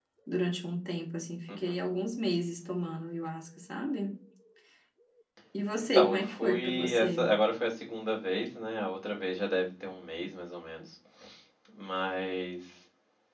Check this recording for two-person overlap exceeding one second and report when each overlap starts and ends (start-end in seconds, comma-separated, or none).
5.8-7.3